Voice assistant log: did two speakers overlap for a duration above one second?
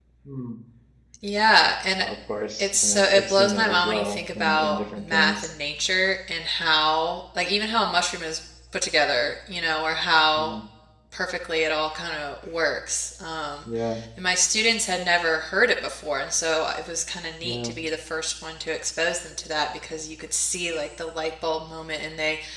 Yes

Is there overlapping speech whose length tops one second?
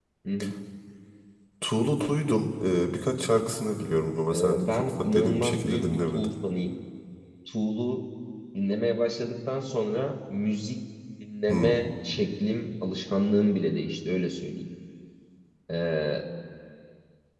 Yes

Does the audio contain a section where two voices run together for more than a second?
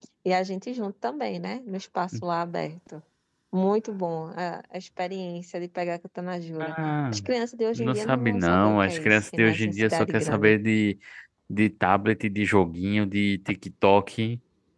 Yes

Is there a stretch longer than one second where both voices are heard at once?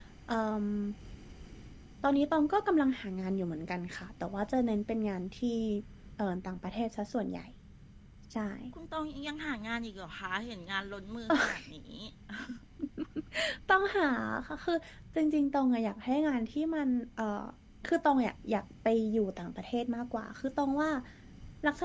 No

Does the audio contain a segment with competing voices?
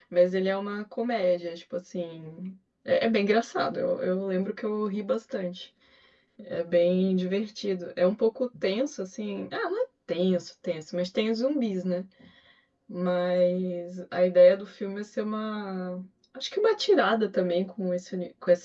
No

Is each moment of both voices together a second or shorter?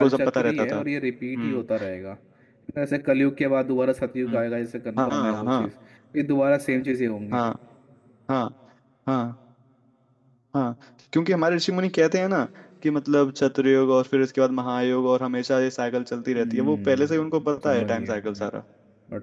No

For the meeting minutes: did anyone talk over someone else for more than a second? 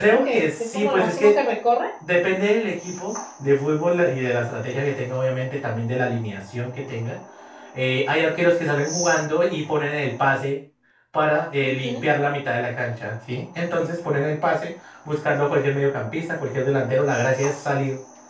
Yes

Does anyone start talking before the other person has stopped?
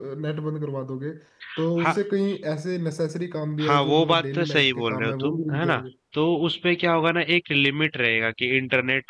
Yes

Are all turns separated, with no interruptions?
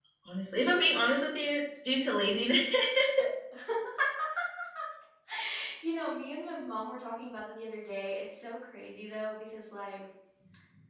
Yes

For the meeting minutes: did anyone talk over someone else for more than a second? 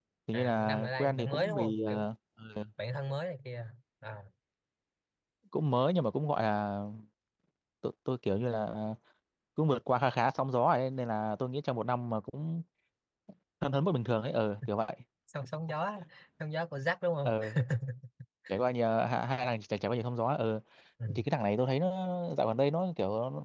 Yes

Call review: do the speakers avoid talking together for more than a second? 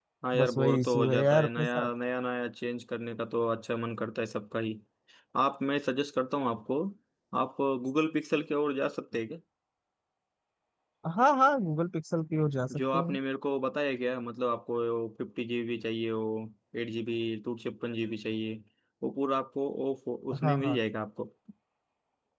No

